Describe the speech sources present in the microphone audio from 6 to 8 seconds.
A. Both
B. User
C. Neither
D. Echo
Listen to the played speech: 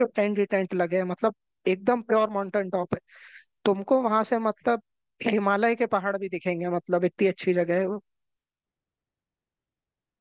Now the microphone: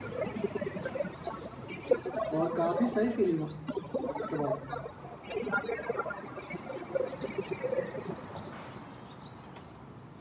D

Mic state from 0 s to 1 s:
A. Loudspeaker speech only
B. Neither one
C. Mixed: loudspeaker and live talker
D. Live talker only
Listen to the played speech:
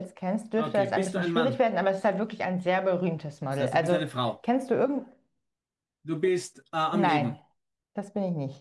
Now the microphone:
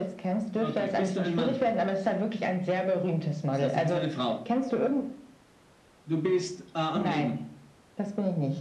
A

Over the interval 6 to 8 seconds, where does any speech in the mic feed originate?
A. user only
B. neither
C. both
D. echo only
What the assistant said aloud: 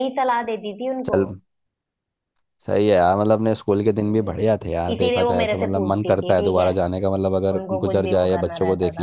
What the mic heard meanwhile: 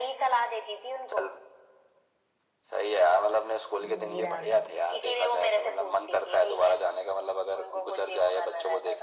D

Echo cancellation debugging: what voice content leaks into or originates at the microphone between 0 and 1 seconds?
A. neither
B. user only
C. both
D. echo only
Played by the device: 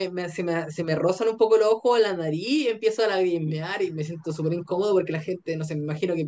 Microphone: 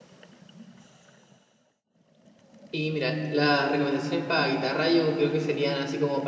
A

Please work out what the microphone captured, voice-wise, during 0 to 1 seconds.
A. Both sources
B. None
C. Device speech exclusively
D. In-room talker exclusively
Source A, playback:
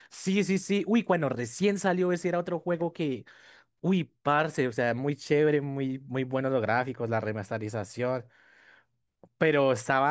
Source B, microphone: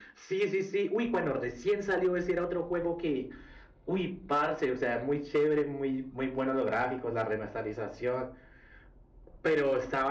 C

